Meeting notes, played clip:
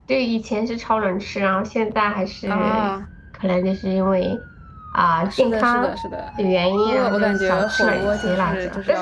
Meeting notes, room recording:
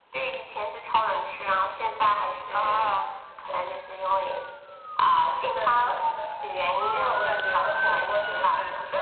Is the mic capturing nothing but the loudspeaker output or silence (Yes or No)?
Yes